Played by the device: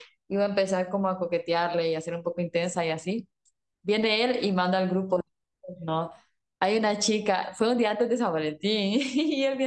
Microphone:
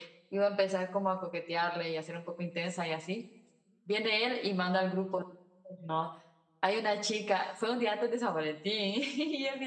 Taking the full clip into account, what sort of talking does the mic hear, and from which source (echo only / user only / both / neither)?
echo only